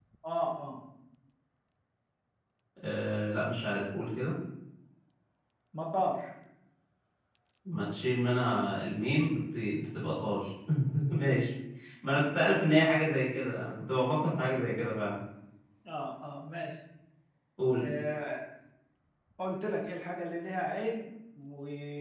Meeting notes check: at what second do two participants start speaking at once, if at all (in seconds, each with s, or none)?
none